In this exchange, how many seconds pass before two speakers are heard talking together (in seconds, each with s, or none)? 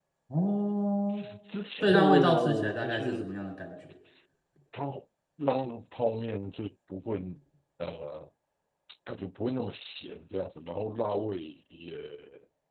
1.8 s